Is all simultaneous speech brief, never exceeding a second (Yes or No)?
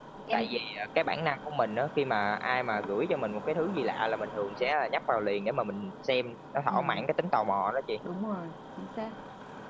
Yes